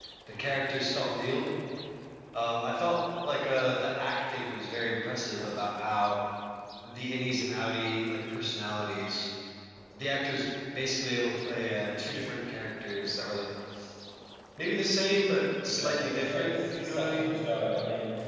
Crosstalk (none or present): present